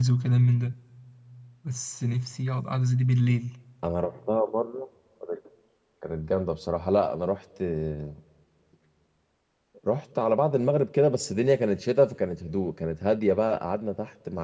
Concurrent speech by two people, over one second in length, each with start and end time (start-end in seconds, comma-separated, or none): none